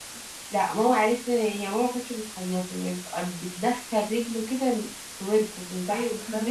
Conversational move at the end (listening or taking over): taking over